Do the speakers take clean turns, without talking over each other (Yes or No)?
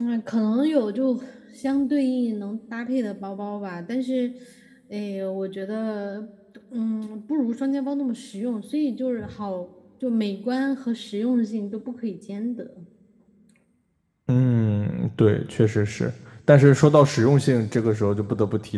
Yes